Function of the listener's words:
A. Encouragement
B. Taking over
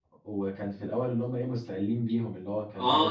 B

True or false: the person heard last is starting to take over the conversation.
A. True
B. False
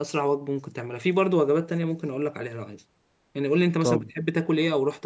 B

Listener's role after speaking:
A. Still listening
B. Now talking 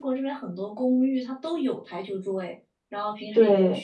A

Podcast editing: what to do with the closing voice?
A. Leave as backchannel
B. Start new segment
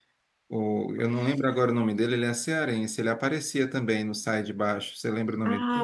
B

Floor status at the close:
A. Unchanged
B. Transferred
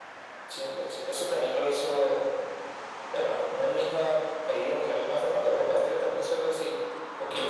B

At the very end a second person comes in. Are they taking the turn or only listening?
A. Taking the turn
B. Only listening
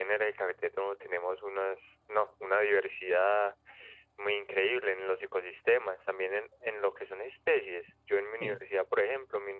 B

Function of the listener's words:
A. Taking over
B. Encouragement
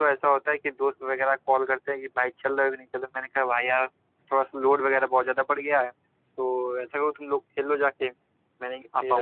A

